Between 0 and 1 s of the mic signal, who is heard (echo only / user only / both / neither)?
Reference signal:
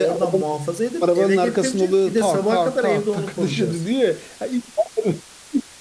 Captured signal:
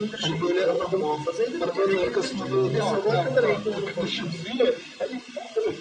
echo only